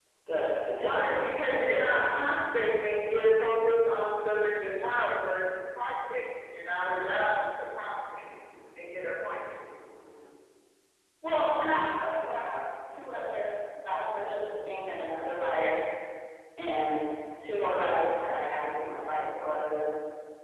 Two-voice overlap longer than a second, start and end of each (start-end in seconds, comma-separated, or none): 0.8-2.1